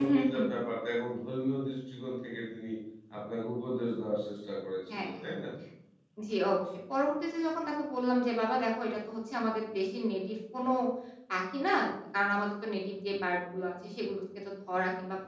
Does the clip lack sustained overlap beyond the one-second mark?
Yes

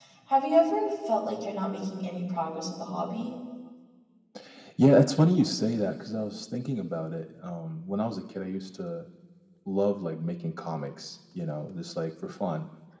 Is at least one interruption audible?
No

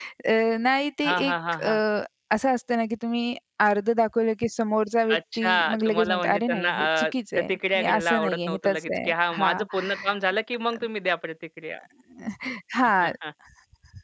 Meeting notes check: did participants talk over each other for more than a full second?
Yes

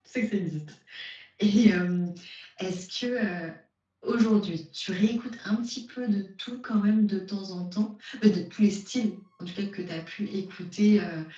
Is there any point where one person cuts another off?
No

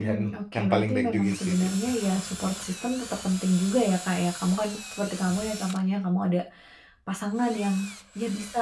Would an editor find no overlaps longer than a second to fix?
No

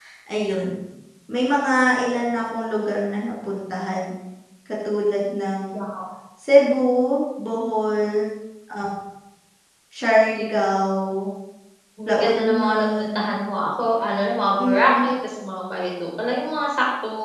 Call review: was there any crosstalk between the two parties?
Yes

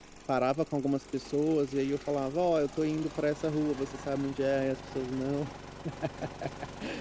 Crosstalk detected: No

